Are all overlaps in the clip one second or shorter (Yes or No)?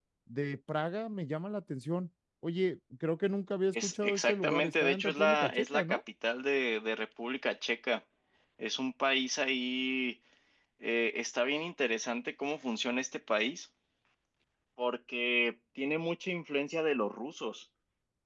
No